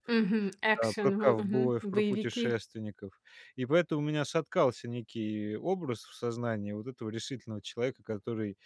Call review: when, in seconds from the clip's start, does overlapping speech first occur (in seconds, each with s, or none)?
0.8 s